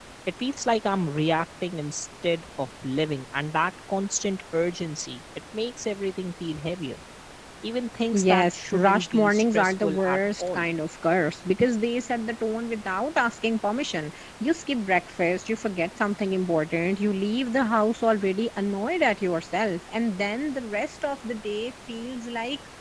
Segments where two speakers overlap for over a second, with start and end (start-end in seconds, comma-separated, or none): 8.1-10.6